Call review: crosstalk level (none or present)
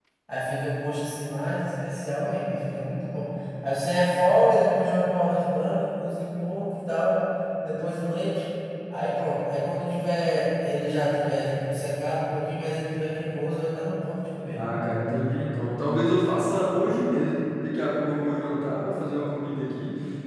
none